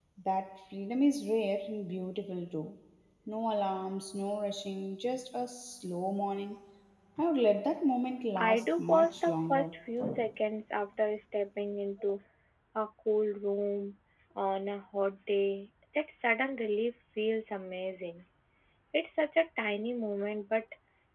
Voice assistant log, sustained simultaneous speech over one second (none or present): present